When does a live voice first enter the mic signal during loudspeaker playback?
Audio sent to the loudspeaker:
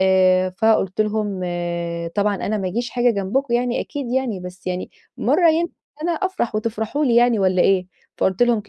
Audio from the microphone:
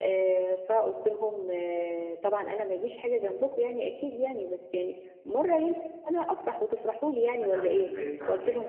7.4 s

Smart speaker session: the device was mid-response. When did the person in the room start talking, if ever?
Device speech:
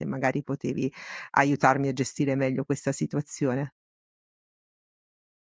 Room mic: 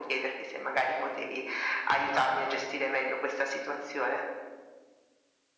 none

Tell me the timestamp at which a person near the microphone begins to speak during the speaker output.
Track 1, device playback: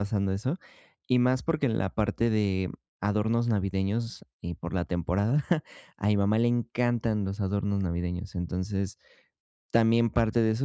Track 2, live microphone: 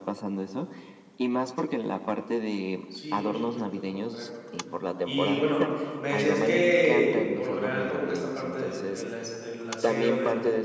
2.9 s

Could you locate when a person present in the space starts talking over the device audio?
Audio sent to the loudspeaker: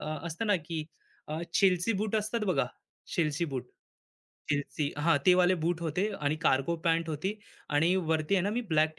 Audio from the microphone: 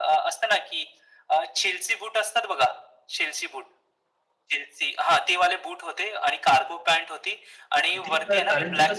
7.9 s

